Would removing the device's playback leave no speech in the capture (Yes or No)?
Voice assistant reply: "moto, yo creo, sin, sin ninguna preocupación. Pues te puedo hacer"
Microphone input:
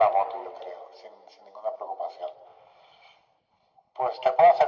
Yes